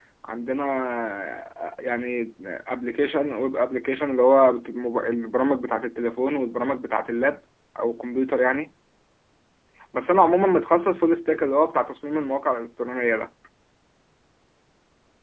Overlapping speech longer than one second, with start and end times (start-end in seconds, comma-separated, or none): none